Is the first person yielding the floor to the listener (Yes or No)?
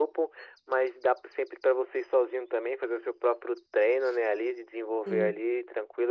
No